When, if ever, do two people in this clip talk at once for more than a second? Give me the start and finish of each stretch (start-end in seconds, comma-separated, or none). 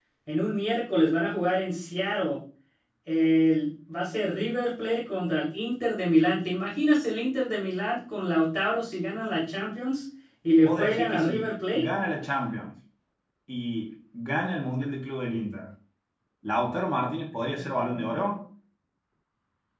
10.6-11.8